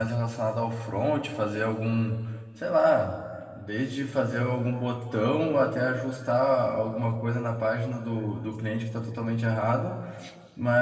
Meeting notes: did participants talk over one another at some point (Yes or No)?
No